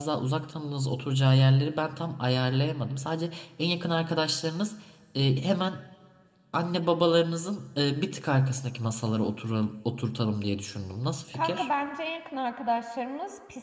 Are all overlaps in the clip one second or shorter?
Yes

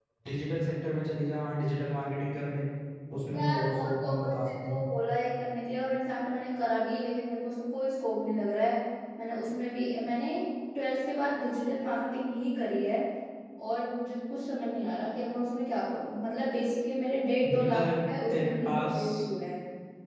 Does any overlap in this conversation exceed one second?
Yes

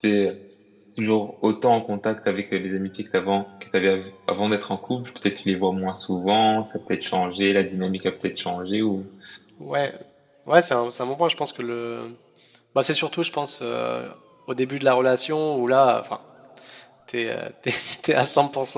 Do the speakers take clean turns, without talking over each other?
Yes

